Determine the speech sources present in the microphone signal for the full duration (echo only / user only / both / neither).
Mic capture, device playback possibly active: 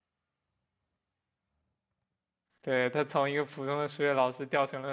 user only